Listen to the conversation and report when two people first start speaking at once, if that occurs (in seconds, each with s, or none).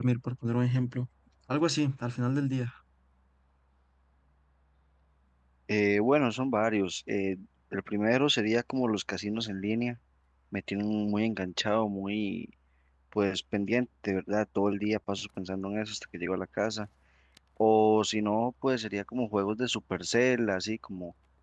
none